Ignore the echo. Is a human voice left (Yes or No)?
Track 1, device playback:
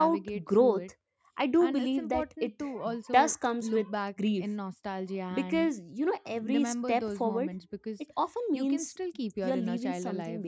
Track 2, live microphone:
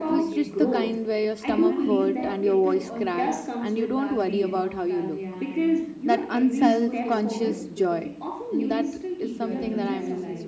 Yes